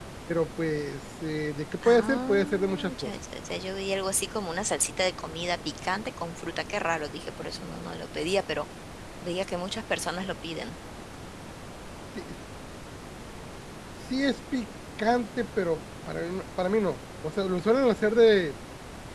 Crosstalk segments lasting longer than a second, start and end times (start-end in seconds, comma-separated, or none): 1.8-3.1